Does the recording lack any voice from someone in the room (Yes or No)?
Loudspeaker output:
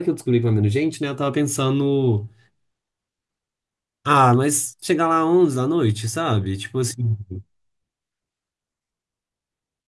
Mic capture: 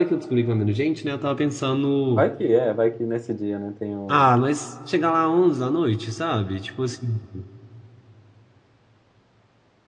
No